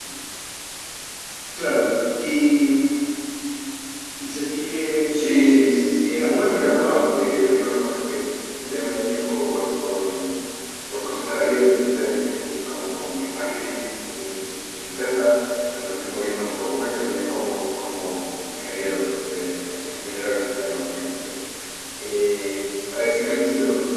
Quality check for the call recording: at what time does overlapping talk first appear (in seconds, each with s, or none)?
5.1 s